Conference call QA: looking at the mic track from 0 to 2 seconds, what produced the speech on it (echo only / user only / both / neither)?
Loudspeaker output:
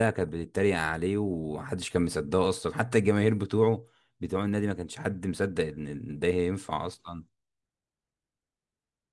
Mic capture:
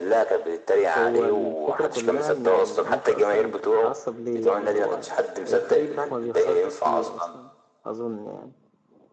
both